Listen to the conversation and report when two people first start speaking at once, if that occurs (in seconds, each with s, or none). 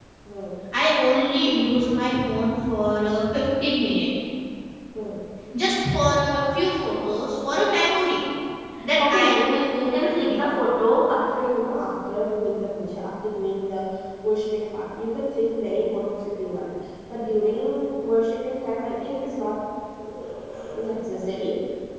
9.0 s